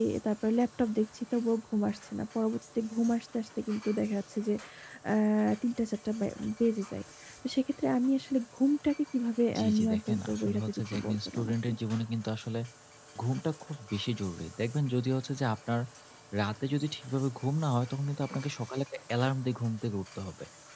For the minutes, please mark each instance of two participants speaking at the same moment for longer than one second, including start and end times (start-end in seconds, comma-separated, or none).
9.6-11.7